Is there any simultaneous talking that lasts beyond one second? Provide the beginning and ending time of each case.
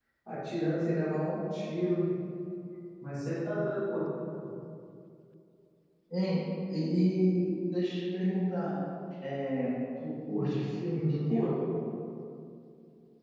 10.3-11.5

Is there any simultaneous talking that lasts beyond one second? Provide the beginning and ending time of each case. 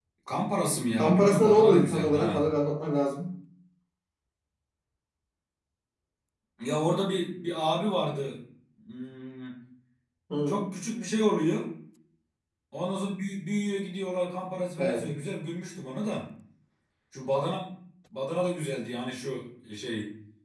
1.0-2.5

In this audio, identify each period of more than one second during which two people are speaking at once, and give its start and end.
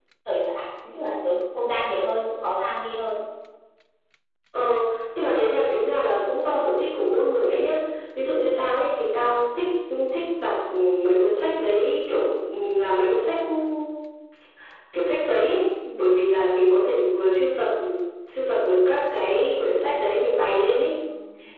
none

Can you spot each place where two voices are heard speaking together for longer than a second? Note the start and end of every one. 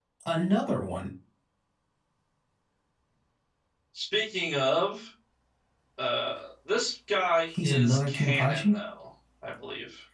7.5-8.8

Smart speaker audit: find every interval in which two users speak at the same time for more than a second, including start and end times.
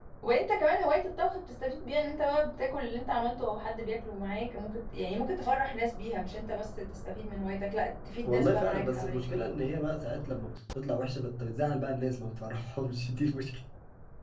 8.2-9.4

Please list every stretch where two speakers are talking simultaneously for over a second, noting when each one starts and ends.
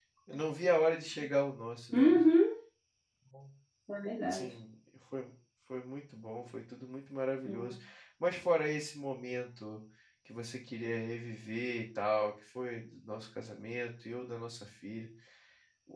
none

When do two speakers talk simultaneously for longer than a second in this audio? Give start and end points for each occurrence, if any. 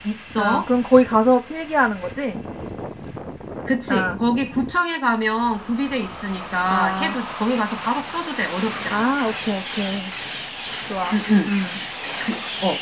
none

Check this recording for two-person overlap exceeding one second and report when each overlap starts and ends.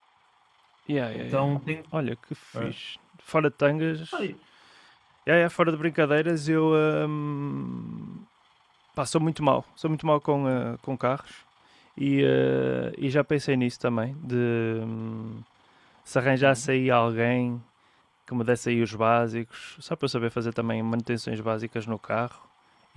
none

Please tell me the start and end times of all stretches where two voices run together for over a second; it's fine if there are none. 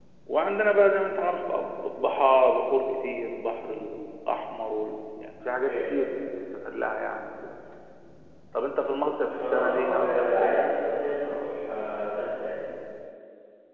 9.2-10.6

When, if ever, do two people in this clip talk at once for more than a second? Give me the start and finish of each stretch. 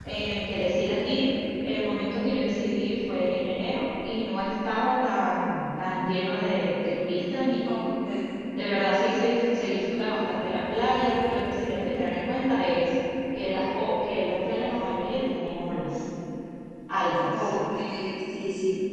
none

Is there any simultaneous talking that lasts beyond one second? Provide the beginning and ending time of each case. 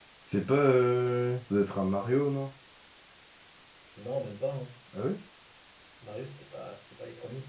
none

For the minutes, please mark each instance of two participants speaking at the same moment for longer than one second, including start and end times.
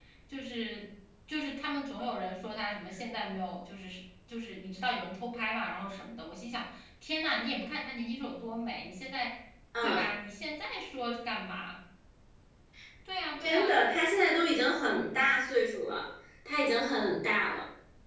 none

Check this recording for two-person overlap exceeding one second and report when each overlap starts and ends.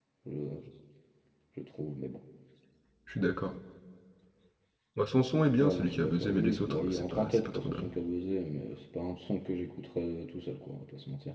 5.6-7.9

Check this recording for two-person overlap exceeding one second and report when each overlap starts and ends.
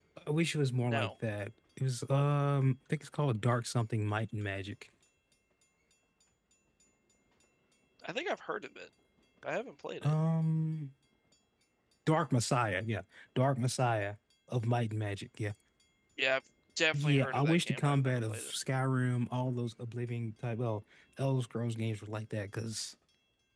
16.9-18.5

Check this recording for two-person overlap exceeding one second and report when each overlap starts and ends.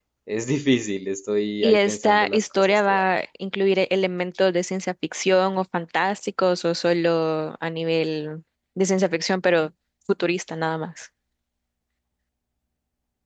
1.6-3.0

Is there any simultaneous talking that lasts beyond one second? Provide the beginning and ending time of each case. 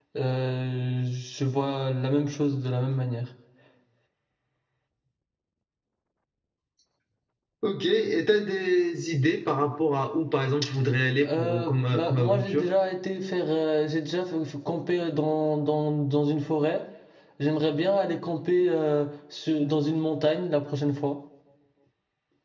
11.2-12.7

